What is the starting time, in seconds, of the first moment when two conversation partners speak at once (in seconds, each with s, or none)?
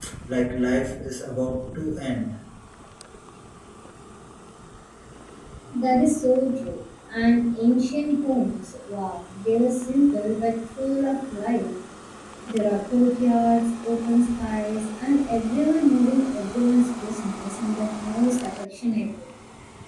none